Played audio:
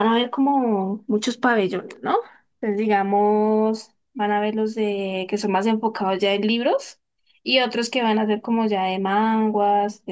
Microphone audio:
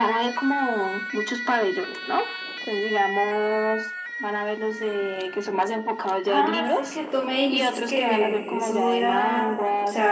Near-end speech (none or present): present